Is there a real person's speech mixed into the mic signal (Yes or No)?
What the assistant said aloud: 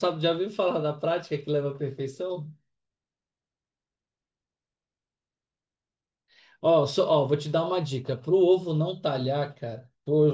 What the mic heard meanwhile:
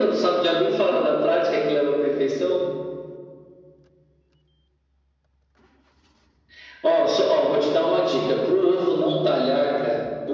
No